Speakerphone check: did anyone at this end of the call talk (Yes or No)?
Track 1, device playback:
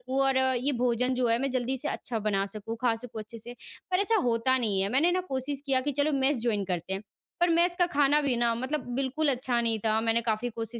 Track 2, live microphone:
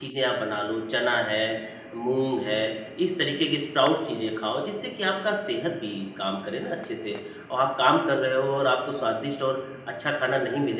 Yes